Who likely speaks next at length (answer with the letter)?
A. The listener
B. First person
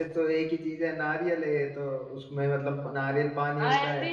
B